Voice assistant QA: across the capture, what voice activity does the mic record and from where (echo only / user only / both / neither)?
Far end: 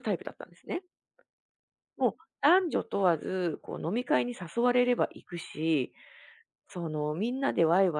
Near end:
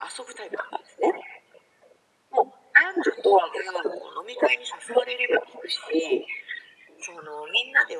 echo only